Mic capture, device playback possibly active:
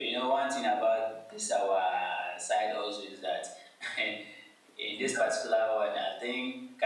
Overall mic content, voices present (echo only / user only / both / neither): both